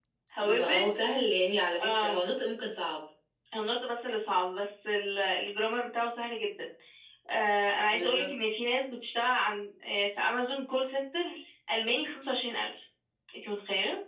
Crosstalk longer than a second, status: none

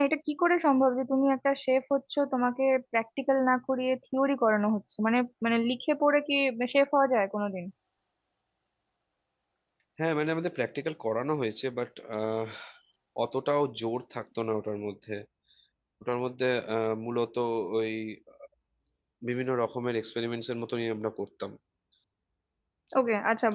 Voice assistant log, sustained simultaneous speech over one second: none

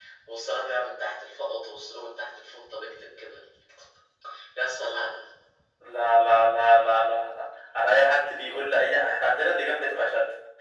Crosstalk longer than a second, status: none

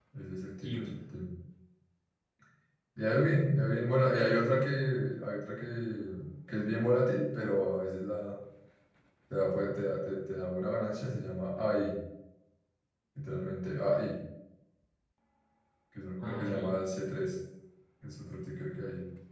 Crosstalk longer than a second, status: none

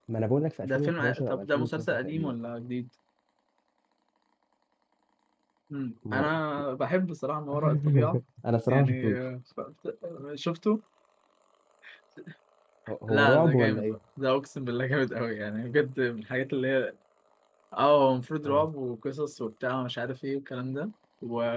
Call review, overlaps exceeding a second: present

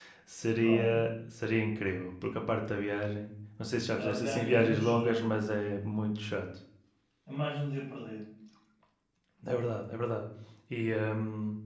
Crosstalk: present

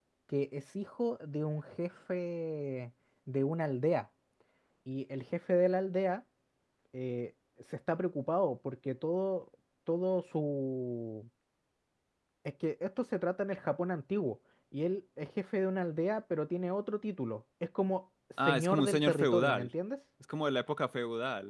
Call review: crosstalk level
present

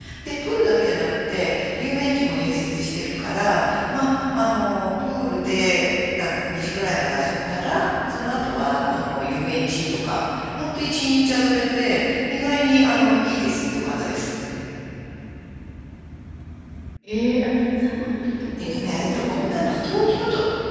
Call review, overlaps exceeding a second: present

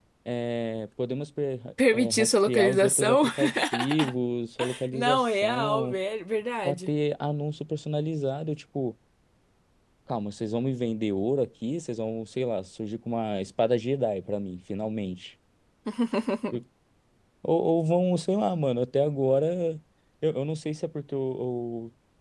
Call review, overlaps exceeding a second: present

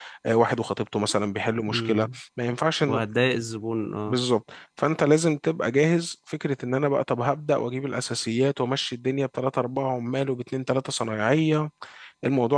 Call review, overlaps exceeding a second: none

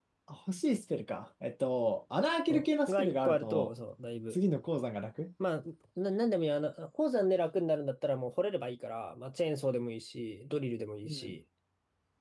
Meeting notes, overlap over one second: present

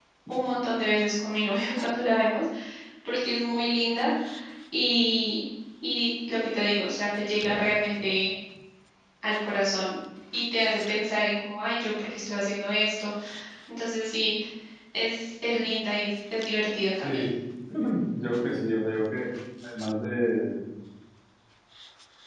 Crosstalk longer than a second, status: none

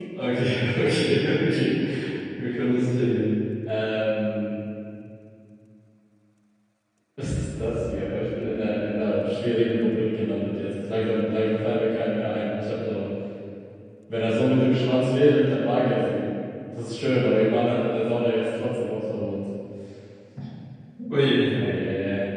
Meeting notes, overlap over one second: none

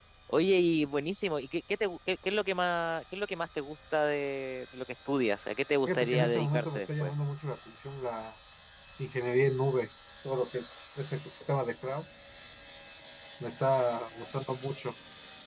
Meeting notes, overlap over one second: present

